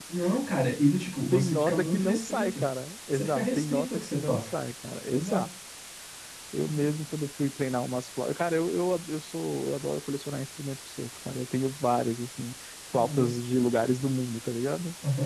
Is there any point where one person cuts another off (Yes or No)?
Yes